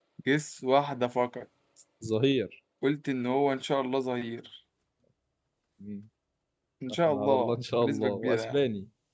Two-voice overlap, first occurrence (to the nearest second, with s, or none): 7 s